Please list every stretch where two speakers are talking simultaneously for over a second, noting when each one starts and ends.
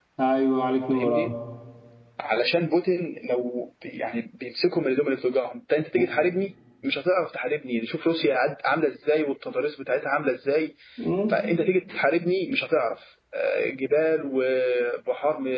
none

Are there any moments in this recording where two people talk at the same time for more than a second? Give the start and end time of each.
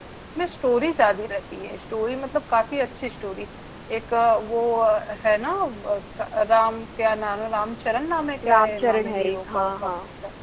8.4-9.7

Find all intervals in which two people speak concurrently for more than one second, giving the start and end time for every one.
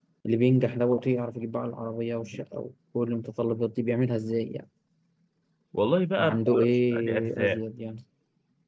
6.2-7.6

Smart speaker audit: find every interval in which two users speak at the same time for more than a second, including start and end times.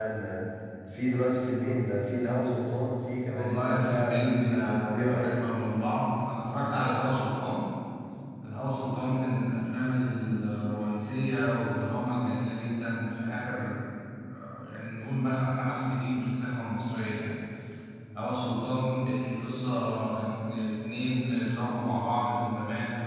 3.3-5.5

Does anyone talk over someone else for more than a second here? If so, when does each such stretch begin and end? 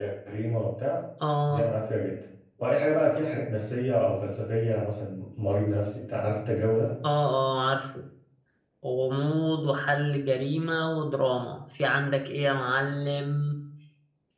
none

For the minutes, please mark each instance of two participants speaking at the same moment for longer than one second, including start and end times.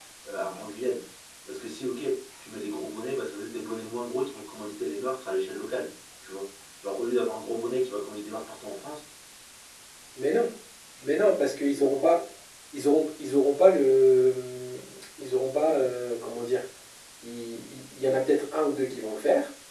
none

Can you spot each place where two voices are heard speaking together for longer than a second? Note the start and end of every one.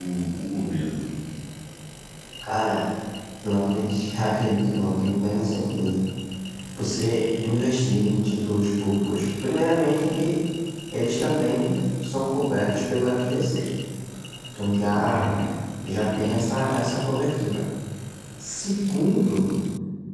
none

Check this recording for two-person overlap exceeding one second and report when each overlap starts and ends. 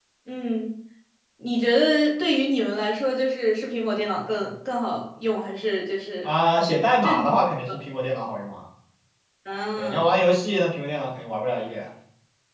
none

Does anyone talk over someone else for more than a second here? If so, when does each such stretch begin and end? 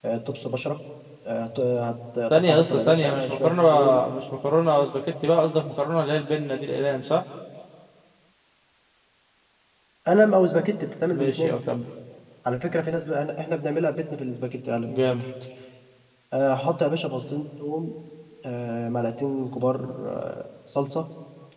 2.3-4.0

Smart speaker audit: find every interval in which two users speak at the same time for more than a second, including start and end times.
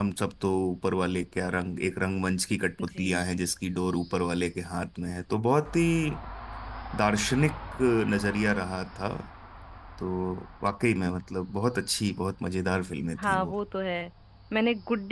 none

